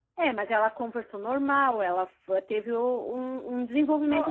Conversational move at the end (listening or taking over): taking over